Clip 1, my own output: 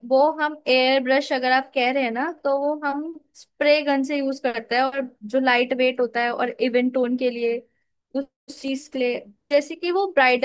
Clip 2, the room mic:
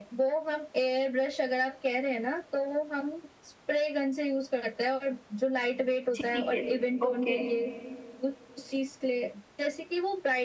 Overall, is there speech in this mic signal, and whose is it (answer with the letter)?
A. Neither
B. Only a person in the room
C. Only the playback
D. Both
D